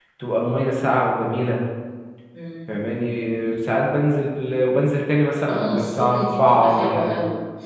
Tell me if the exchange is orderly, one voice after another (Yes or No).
No